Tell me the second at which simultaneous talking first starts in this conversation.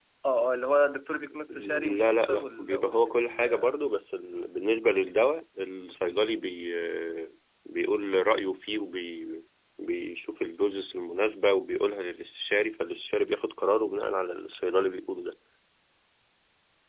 1.5 s

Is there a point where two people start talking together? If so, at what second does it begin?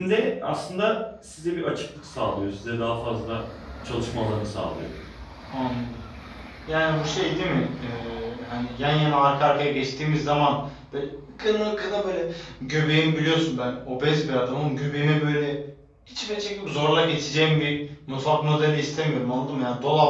none

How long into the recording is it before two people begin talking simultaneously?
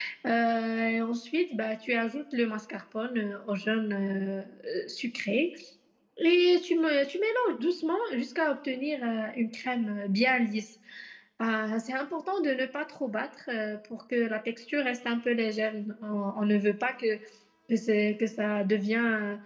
none

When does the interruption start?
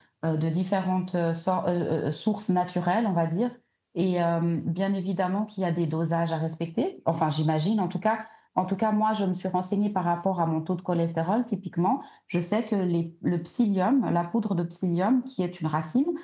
none

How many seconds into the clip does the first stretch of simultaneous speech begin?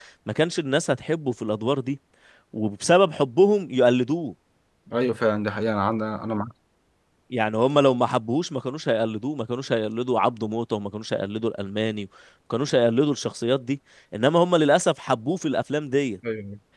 none

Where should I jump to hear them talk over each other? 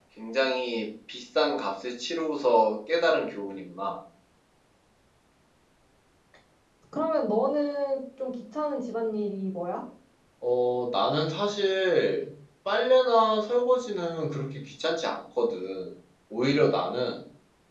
none

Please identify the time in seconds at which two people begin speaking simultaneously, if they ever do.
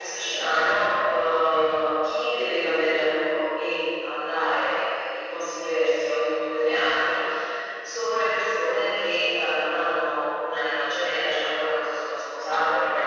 none

